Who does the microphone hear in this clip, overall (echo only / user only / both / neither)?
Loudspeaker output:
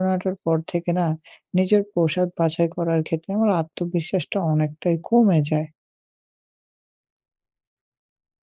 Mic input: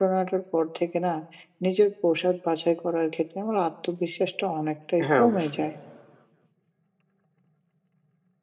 both